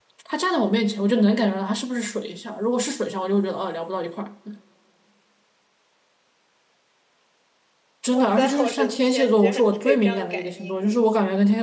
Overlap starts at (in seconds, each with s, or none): 8.1 s